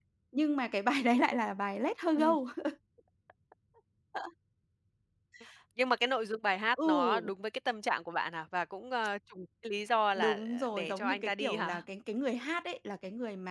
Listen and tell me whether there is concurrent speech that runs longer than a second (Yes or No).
Yes